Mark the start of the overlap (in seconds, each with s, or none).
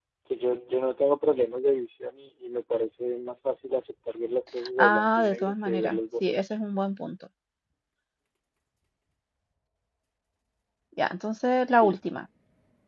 4.8 s